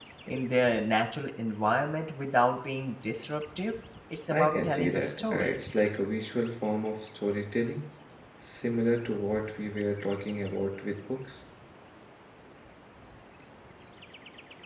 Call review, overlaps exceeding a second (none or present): present